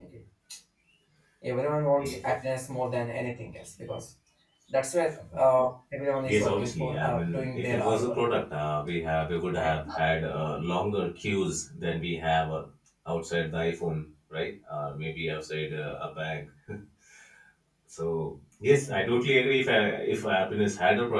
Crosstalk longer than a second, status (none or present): present